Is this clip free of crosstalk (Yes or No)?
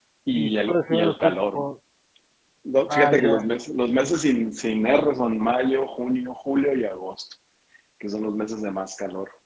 No